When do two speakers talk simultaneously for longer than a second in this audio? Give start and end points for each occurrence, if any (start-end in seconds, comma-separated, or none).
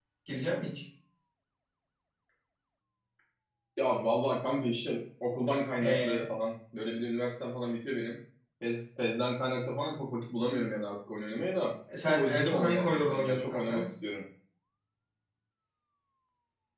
12.1-13.8